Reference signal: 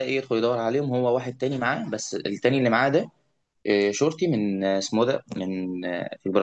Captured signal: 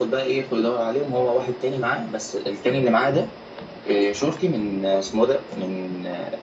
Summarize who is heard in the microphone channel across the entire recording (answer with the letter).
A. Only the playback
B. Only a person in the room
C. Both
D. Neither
A